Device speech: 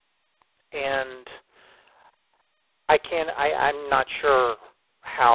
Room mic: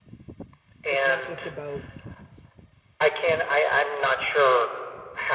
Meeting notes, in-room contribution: present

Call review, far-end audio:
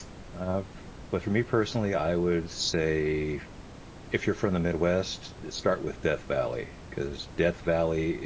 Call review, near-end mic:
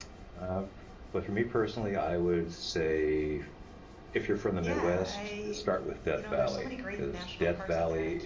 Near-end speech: present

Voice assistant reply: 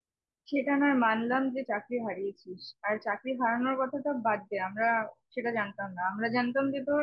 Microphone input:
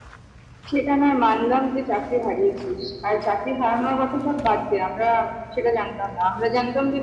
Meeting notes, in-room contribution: none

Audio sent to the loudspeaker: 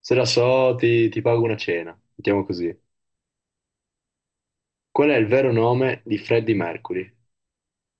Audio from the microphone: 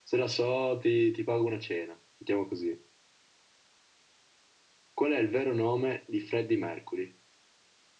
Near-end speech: none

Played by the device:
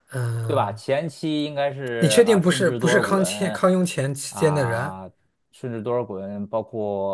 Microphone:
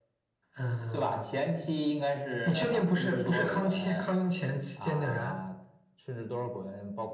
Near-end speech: none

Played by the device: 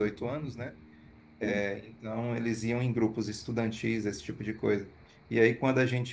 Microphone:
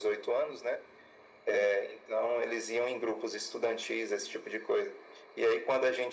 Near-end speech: none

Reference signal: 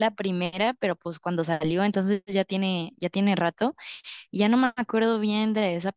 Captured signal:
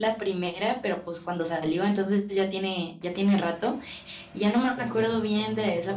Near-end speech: present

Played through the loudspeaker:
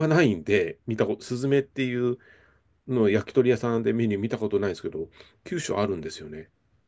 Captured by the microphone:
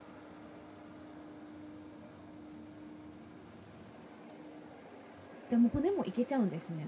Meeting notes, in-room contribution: present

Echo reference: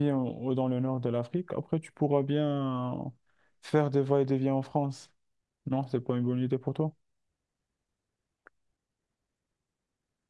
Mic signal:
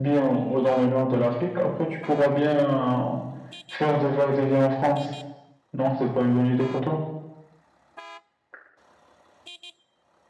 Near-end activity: none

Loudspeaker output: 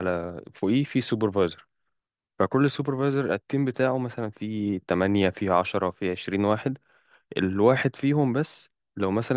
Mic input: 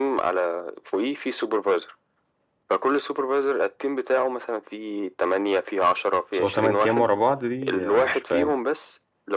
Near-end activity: present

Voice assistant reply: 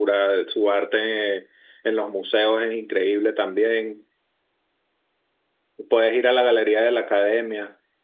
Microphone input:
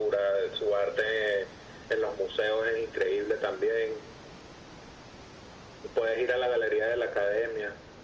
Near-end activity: none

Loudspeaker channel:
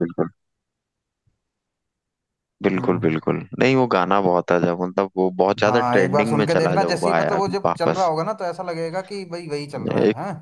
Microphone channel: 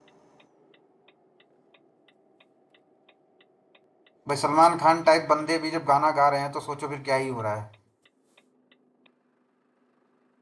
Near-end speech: present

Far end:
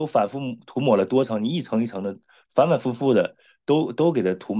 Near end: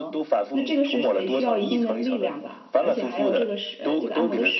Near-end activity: present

